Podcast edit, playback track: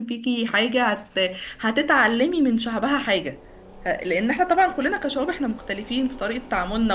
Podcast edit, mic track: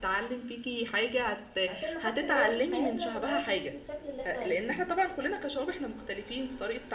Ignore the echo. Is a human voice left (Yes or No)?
Yes